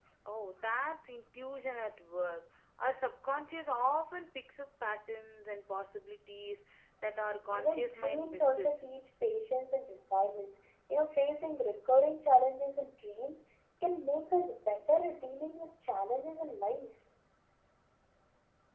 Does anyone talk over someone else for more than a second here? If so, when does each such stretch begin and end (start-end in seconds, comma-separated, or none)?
7.5-8.8